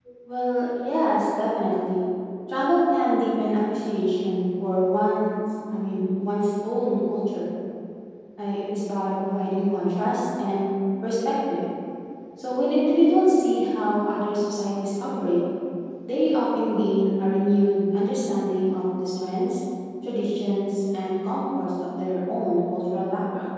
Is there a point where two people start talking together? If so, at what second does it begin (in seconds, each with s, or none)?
none